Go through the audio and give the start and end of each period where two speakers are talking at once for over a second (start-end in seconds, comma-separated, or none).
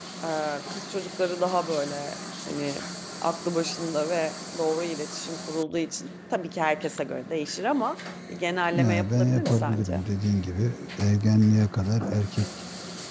8.7-10.0